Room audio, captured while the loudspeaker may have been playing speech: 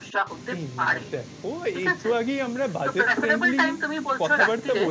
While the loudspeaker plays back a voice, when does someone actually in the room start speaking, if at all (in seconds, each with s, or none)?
0.6 s